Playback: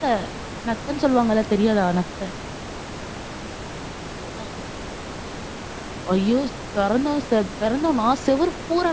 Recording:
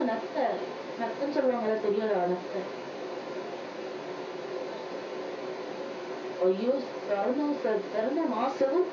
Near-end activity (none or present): none